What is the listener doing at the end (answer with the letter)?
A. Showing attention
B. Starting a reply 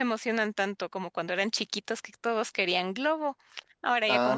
B